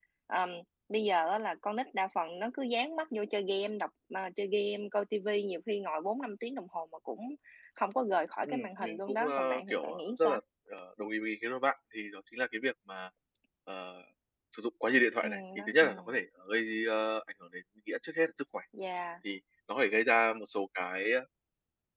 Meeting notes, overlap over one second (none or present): present